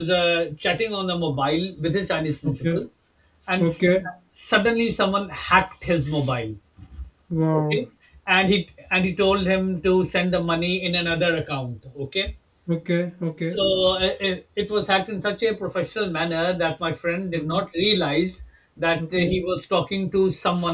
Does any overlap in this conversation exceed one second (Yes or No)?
No